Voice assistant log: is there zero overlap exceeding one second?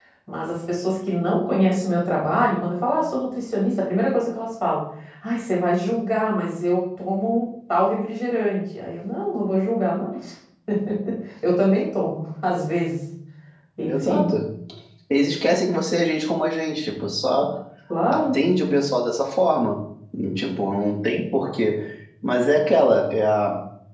Yes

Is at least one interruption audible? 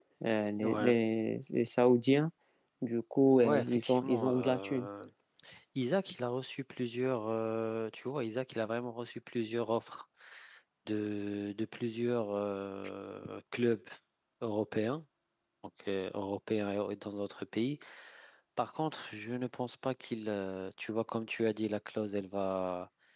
Yes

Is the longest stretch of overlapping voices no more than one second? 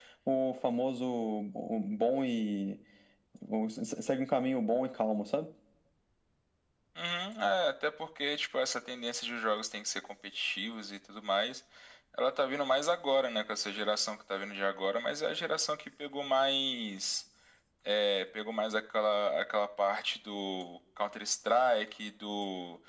Yes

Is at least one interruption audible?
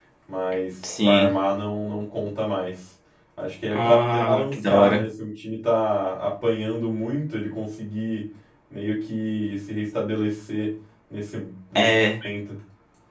Yes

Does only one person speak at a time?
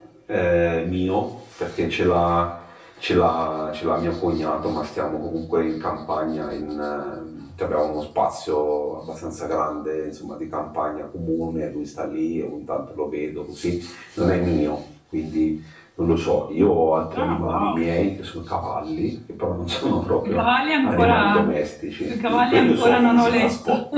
No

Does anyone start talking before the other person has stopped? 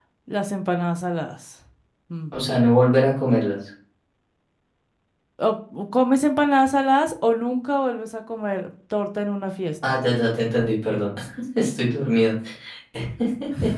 No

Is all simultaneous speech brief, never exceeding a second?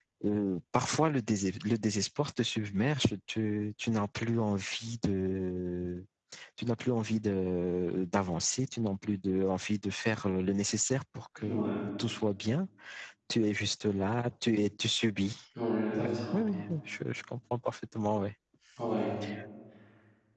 Yes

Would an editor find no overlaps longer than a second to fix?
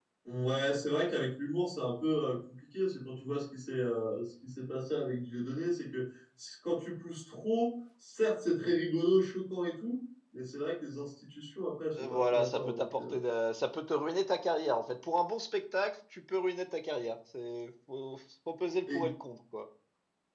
No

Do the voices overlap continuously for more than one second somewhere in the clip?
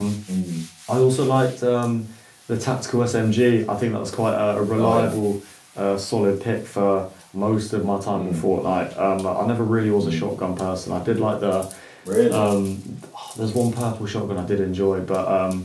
No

